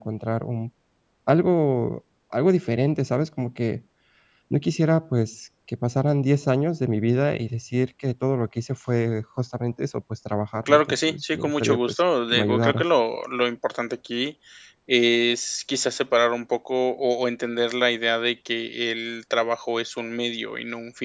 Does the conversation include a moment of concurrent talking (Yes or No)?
Yes